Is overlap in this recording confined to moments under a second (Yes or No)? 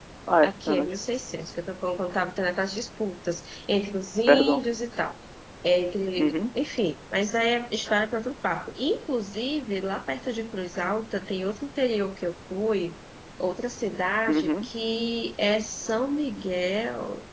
Yes